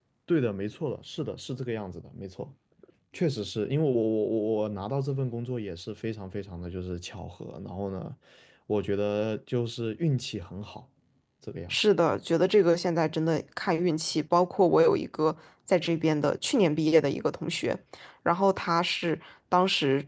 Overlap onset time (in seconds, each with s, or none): none